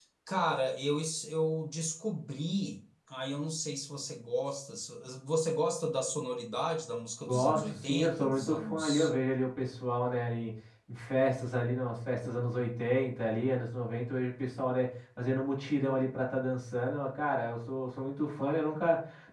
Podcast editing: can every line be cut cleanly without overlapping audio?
No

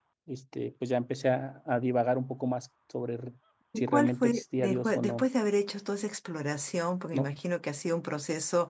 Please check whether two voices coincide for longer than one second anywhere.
Yes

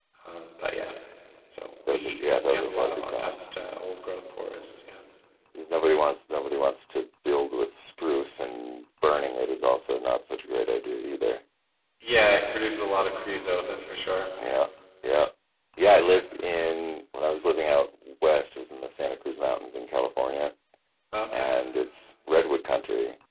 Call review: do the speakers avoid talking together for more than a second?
No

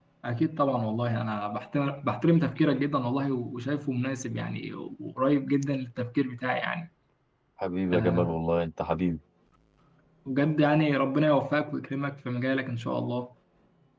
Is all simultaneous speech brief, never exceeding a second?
Yes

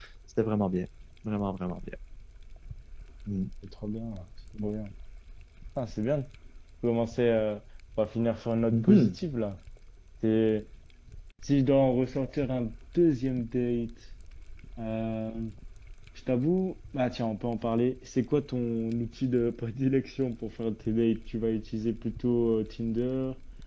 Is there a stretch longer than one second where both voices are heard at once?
No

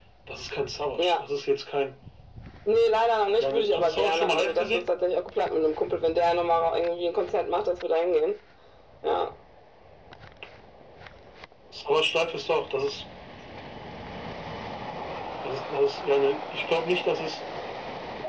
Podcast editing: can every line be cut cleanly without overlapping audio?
No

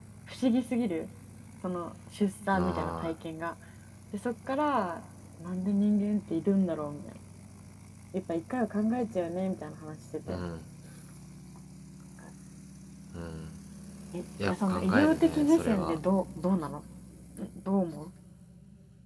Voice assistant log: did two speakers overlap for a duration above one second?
Yes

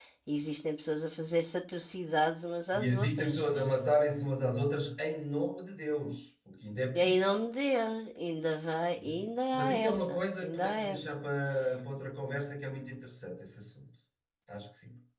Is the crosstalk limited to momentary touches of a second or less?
No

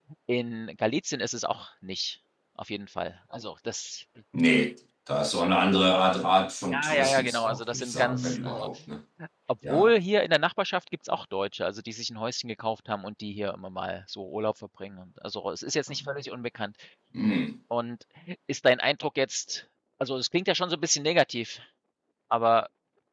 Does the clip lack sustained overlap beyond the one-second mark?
No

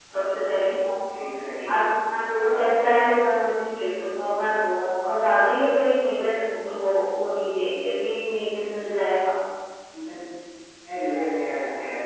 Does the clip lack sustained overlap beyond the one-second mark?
Yes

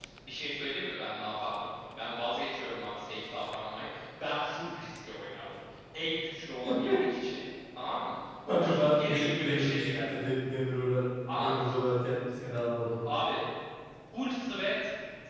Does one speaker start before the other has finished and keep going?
Yes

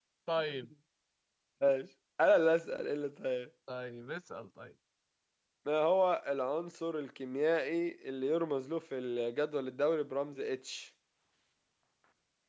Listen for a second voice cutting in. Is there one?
No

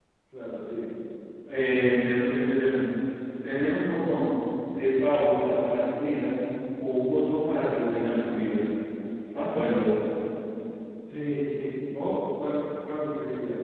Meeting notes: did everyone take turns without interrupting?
Yes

